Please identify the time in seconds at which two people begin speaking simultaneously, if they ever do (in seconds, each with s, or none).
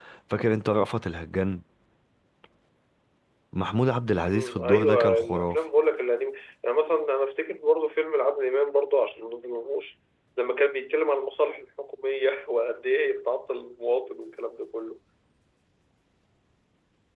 4.3 s